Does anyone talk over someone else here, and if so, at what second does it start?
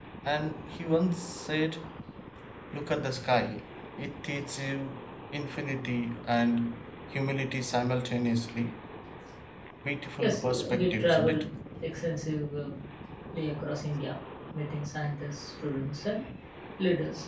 10 s

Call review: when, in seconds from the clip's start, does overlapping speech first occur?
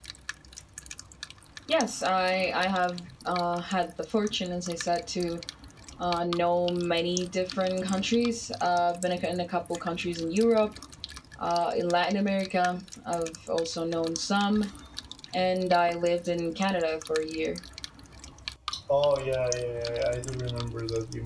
none

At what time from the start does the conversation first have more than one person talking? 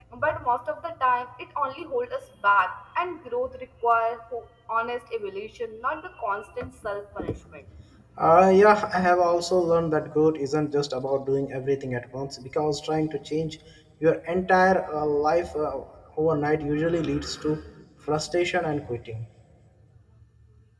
none

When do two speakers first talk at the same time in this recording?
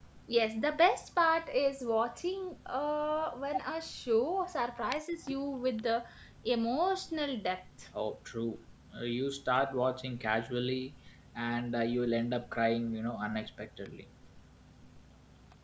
none

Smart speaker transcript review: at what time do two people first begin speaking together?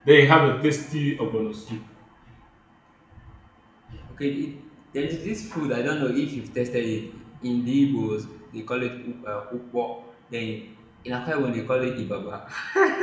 none

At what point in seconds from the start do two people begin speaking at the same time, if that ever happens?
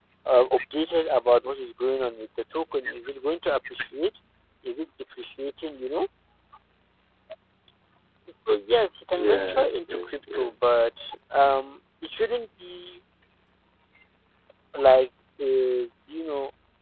9 s

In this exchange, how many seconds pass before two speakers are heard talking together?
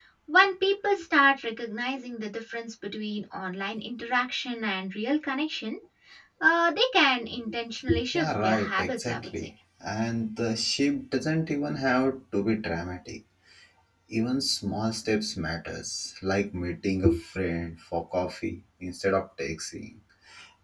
8 s

